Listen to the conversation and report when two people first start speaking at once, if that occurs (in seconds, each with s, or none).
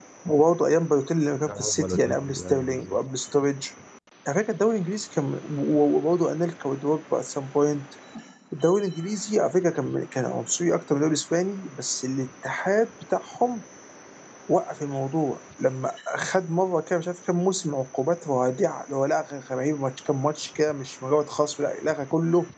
1.5 s